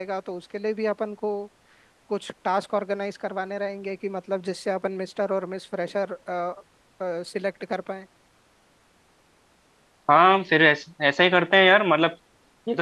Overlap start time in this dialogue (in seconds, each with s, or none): none